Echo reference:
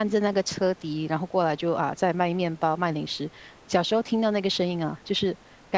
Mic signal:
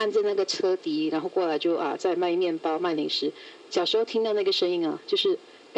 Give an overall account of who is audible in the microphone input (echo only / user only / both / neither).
echo only